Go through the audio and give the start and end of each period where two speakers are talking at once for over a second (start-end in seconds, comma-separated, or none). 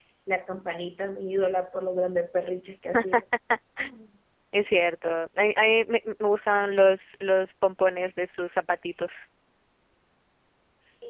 none